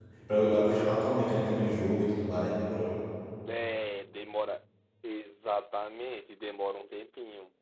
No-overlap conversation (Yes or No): Yes